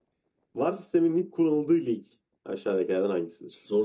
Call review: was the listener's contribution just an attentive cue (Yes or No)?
Yes